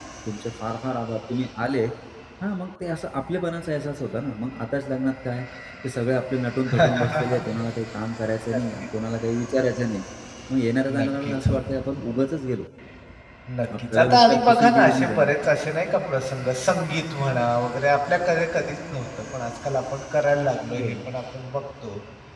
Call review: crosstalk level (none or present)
present